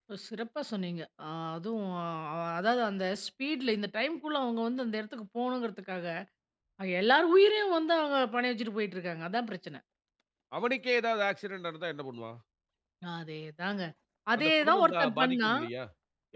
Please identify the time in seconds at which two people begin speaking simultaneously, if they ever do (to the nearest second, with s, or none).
14 s